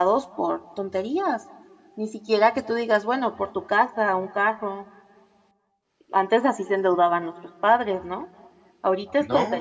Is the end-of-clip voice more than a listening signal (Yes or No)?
No